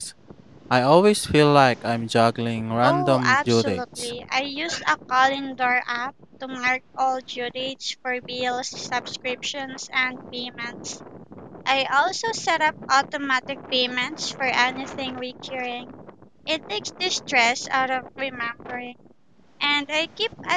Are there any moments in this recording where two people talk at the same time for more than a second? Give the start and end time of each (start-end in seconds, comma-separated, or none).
2.8-4.1